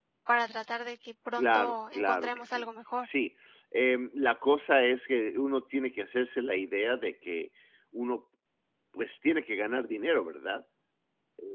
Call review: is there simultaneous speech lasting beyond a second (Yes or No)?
Yes